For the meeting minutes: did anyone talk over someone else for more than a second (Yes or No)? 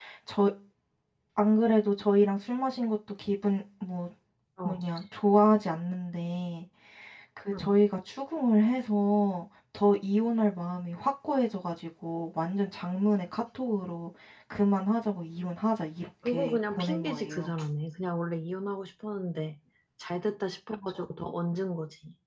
Yes